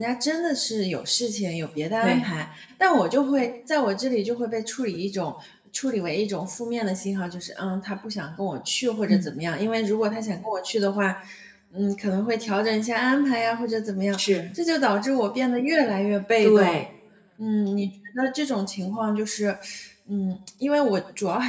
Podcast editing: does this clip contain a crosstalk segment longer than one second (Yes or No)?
No